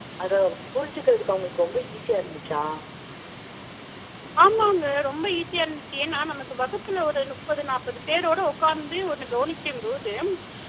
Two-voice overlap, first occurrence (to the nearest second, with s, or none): none